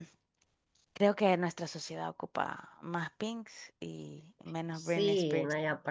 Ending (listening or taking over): taking over